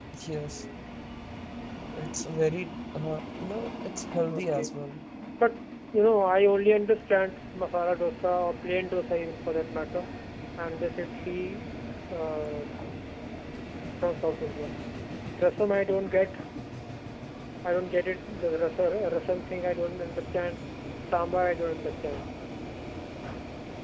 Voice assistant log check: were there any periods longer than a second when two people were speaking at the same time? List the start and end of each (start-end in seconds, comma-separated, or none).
none